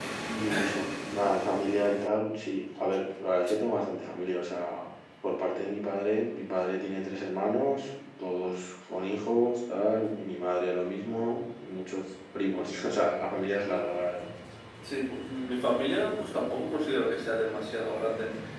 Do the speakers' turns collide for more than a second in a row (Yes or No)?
No